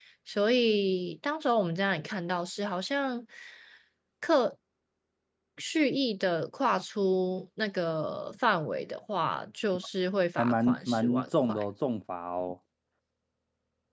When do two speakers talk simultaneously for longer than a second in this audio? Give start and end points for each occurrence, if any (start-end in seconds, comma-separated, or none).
10.4-11.6